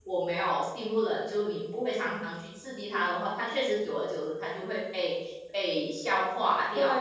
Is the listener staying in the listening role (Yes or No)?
No